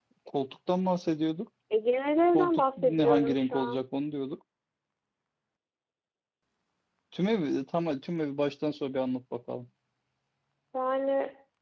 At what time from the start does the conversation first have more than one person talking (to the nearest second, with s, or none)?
2 s